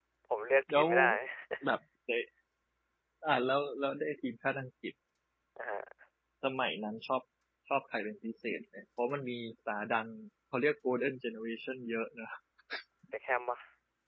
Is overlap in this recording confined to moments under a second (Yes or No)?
Yes